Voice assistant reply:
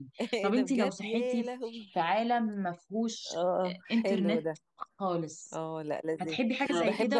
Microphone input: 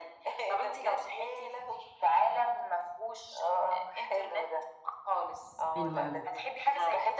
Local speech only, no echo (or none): حلو قوي